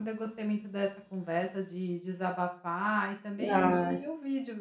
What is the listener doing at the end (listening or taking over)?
listening